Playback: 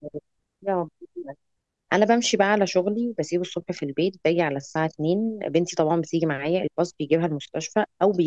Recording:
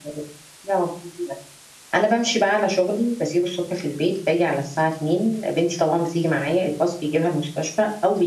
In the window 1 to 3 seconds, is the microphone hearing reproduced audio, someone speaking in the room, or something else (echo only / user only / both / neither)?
echo only